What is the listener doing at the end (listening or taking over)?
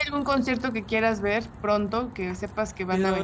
taking over